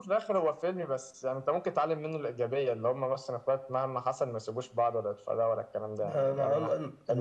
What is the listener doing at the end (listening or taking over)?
taking over